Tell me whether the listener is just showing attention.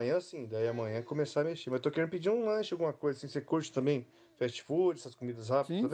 No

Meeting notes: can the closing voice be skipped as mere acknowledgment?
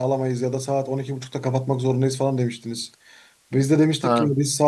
Yes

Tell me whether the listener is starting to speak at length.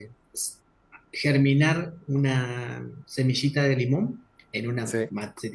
No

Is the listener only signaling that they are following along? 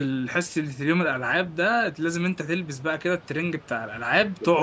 No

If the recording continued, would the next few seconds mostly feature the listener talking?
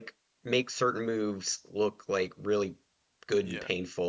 No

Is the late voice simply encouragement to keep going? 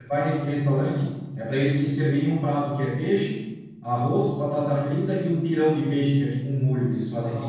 No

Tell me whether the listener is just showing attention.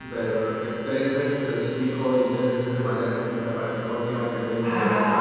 No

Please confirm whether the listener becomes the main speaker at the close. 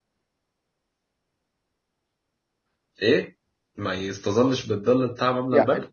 Yes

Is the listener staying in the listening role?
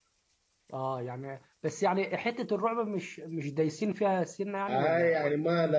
No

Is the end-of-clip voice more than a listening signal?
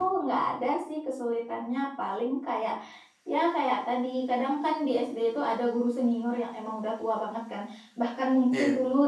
No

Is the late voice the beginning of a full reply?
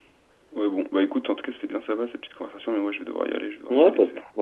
Yes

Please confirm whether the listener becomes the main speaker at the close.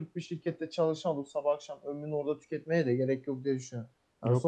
No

